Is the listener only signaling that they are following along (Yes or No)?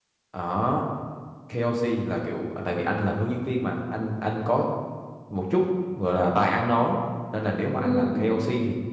Yes